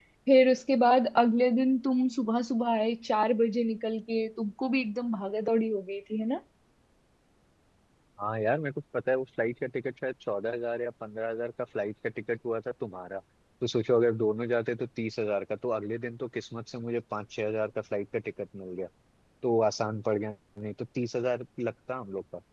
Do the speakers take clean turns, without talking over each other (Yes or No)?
Yes